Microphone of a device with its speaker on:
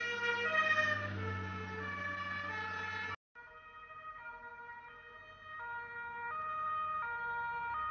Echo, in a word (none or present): none